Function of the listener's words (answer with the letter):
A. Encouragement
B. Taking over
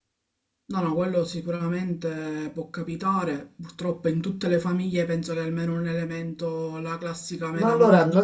B